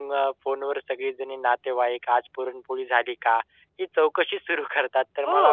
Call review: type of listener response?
listening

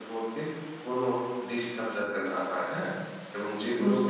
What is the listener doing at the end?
listening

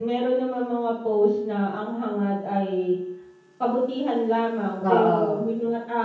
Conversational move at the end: listening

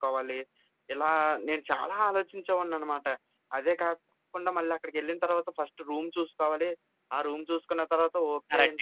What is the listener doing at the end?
taking over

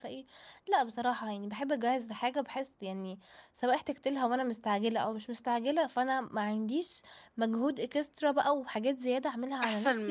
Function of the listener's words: taking over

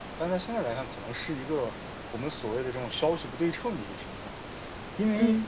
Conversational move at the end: listening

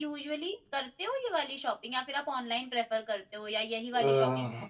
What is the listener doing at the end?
taking over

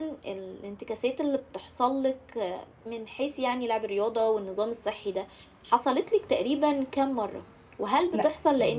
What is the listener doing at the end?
listening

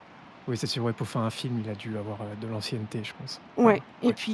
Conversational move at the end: taking over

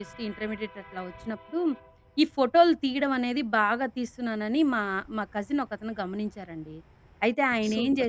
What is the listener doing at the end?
taking over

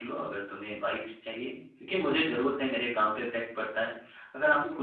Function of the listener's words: listening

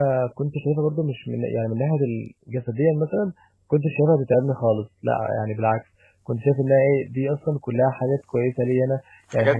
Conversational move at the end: listening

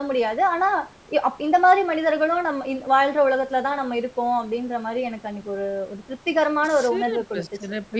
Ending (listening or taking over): taking over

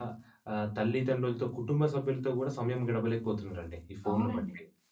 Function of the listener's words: taking over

